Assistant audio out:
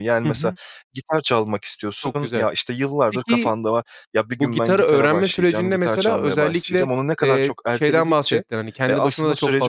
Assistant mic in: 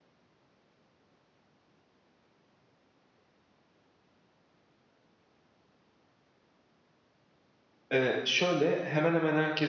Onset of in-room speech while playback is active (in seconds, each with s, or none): 7.9 s